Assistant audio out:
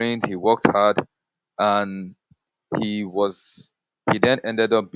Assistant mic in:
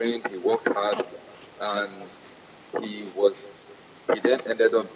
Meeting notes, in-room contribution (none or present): none